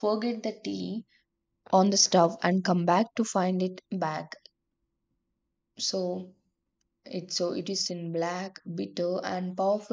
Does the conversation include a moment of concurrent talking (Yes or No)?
No